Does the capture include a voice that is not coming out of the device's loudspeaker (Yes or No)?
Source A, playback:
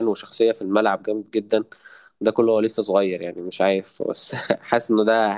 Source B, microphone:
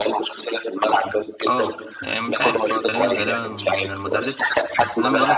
Yes